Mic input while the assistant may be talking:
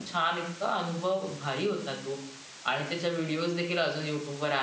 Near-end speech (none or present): present